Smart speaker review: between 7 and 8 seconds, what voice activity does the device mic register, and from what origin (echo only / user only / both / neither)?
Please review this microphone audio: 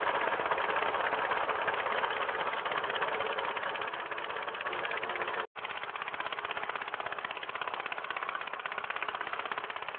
neither